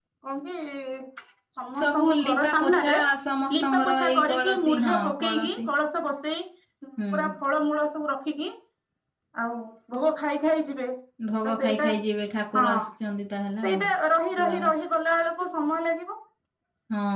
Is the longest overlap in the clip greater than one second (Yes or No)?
Yes